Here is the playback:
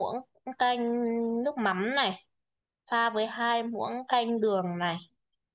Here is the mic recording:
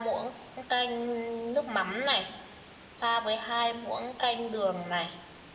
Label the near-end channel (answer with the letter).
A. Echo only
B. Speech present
A